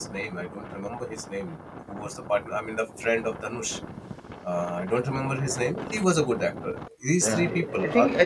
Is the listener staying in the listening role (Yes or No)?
No